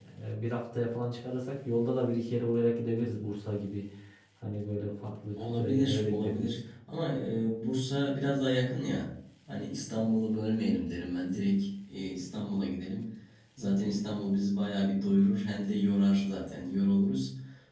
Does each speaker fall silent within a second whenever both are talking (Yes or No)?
No